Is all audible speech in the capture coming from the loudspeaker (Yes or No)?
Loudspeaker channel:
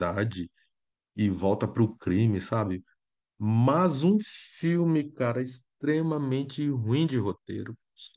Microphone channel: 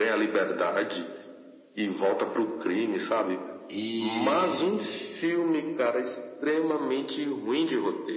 No